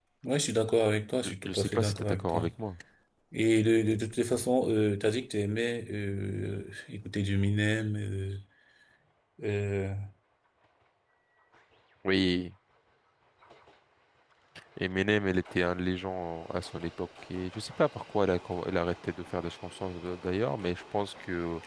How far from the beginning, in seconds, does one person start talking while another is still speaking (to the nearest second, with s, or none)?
1 s